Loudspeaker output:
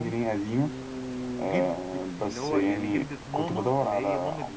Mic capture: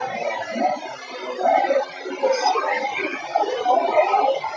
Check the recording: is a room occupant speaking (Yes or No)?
No